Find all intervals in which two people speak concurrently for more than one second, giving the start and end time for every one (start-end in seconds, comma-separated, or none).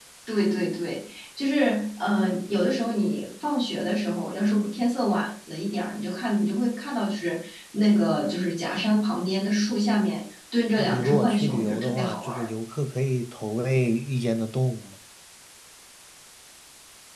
10.8-12.4